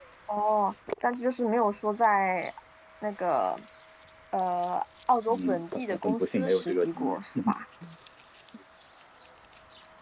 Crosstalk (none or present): present